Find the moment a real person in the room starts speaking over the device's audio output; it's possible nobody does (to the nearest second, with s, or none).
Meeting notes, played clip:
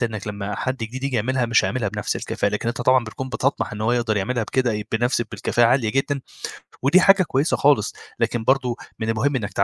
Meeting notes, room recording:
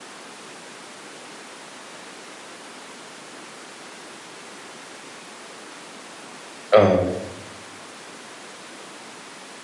7 s